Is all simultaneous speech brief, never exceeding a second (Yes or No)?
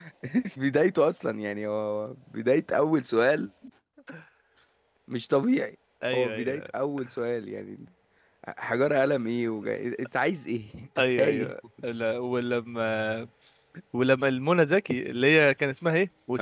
Yes